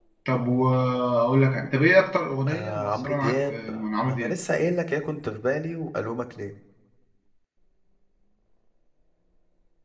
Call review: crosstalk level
present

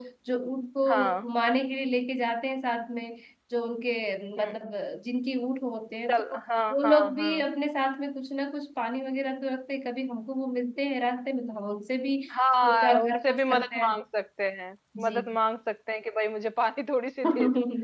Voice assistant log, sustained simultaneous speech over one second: present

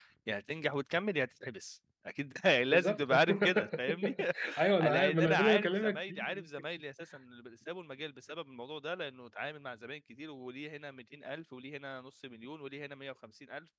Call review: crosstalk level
present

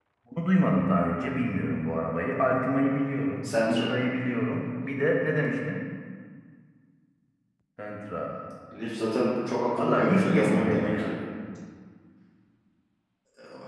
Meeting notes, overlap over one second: present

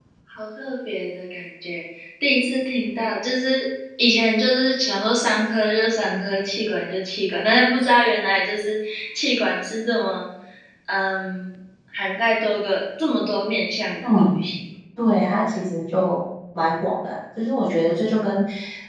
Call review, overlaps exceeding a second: none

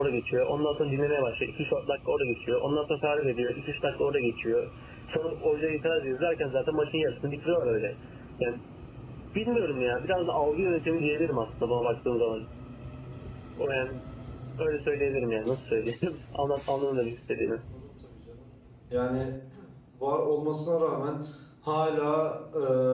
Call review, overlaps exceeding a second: none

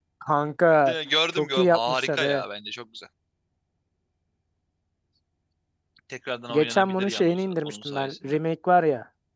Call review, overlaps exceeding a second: present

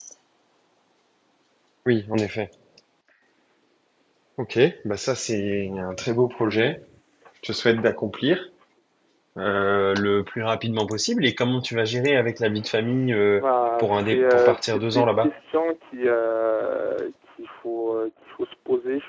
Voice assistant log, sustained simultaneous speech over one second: present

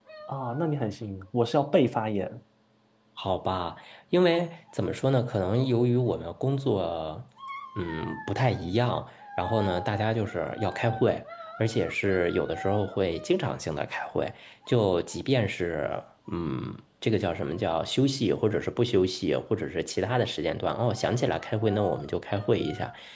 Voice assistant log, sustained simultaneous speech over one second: none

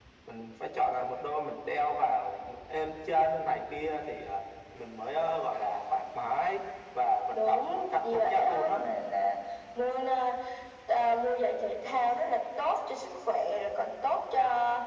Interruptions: present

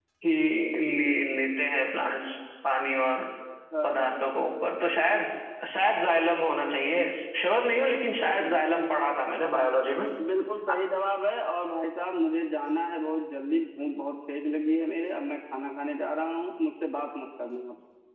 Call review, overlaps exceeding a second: none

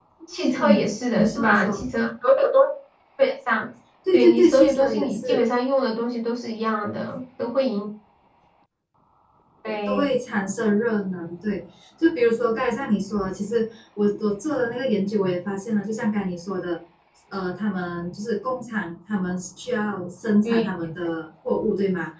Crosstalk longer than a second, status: present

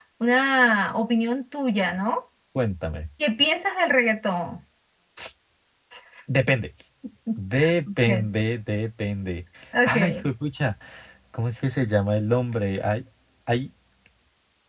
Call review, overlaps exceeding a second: none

